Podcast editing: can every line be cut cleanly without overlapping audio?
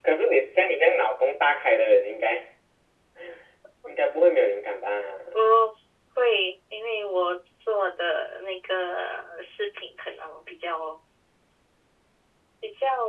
Yes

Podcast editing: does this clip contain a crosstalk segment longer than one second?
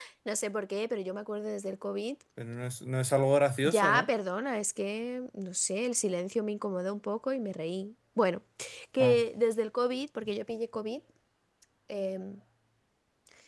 No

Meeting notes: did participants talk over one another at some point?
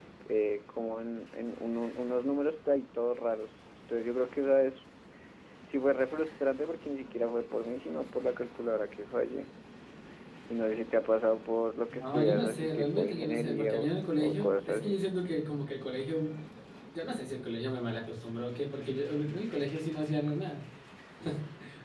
Yes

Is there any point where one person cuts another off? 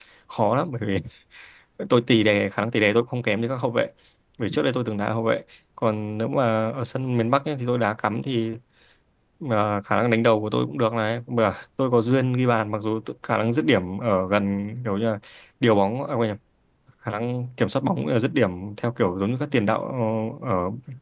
No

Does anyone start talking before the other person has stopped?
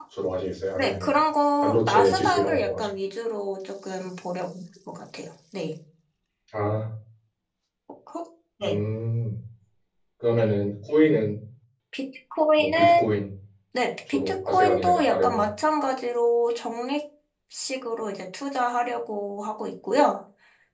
Yes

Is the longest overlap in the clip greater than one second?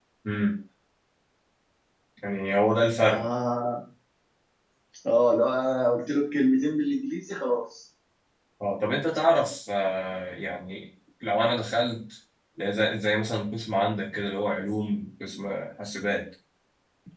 No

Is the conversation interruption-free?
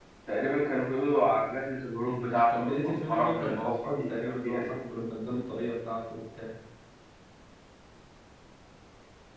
No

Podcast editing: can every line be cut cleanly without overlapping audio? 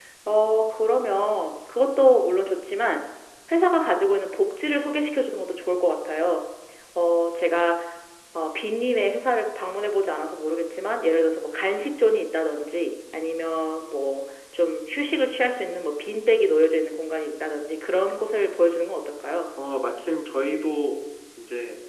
Yes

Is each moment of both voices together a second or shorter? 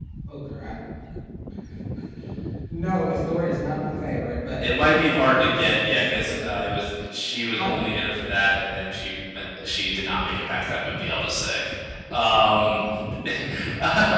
No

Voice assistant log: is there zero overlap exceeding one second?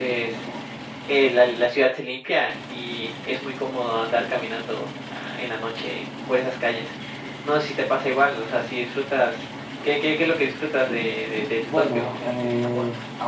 No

